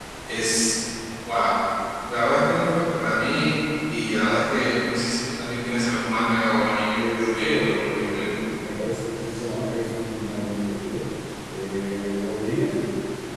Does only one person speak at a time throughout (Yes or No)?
No